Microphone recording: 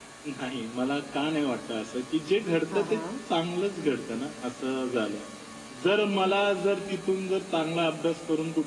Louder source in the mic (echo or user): echo